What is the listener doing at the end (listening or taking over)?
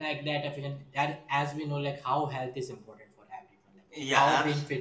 listening